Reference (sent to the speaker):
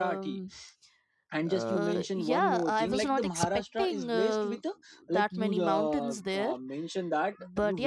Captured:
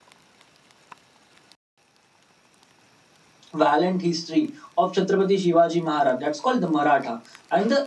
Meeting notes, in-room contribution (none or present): present